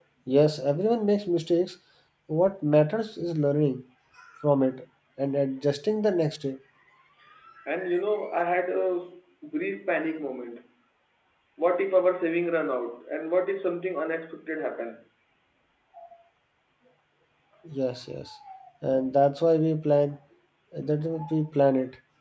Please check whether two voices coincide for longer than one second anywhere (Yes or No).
No